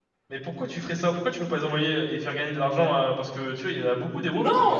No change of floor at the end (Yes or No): No